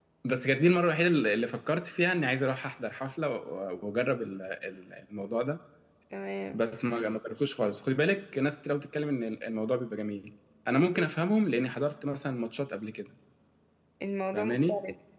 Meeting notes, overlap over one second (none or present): none